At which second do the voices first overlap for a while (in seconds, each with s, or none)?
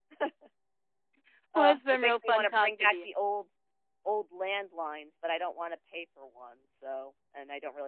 1.6 s